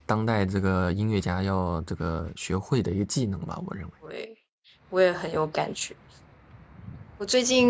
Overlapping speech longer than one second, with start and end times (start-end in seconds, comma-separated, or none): none